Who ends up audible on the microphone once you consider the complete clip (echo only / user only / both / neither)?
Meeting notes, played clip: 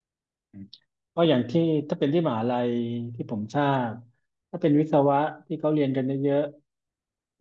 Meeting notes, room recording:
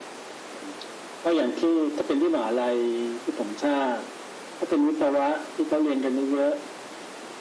echo only